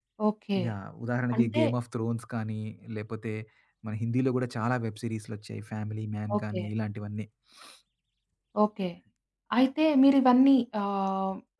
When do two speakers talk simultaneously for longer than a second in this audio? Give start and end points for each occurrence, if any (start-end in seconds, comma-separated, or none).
none